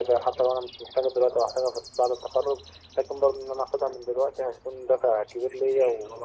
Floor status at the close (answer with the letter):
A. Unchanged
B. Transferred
B